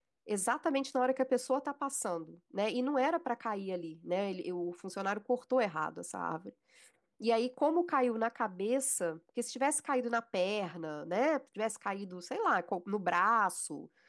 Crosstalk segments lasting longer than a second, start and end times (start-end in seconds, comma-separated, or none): none